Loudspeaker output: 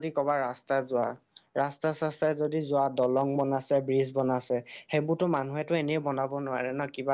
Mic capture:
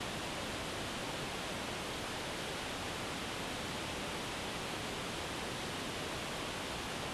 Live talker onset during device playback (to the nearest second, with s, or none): none